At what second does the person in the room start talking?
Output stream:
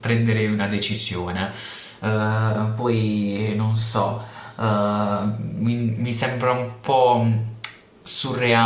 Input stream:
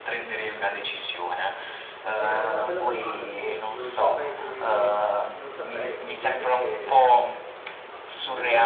2.1 s

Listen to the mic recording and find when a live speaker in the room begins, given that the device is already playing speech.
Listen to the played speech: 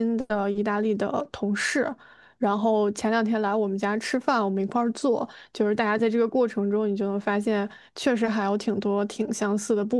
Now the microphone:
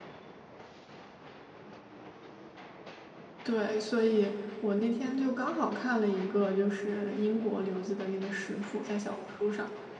3.4 s

